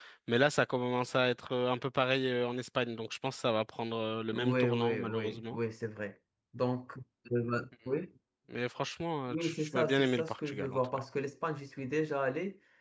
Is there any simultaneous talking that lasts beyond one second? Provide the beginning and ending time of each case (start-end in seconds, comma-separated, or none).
4.3-5.6, 9.3-10.8